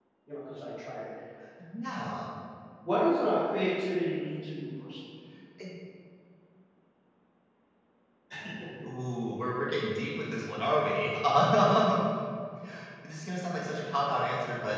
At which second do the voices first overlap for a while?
none

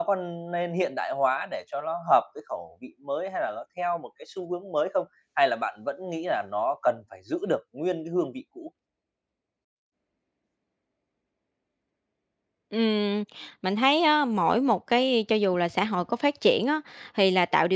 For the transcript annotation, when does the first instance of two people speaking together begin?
none

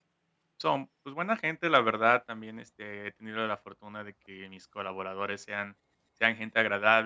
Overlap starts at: none

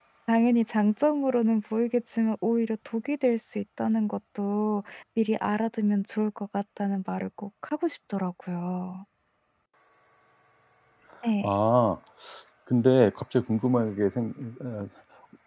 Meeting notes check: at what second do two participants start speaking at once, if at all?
none

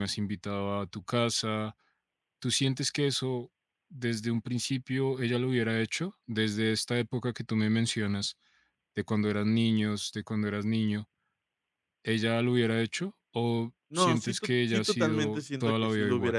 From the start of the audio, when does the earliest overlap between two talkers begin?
13.9 s

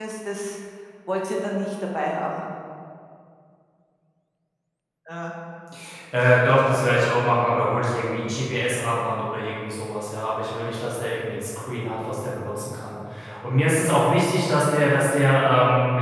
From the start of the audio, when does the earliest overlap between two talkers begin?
none

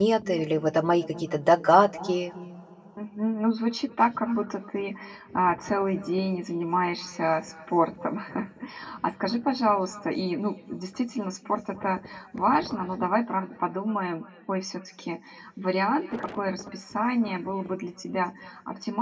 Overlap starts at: none

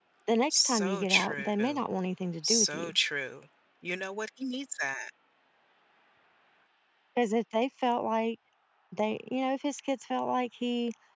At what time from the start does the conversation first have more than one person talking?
0.5 s

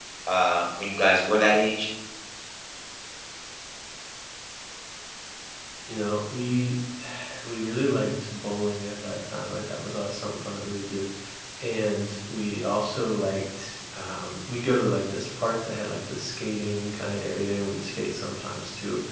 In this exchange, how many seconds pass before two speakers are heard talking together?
none

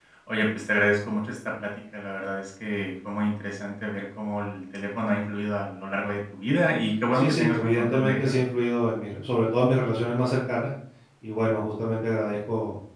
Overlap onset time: 7.1 s

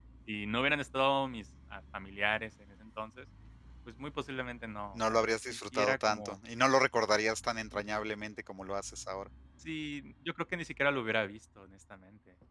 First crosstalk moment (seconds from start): 4.9 s

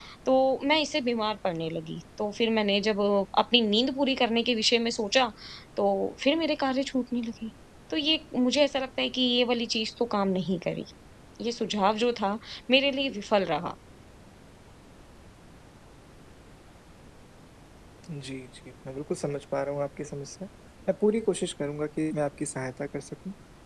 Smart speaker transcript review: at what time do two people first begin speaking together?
none

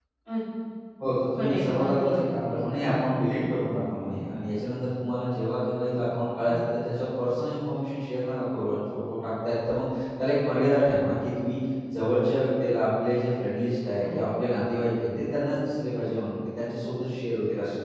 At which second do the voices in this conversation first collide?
1.4 s

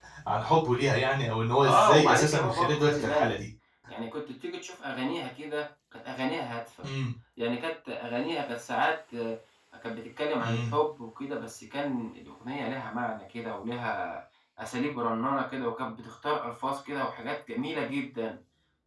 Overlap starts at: 1.6 s

